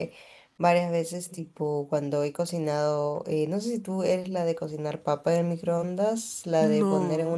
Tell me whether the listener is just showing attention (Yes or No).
Yes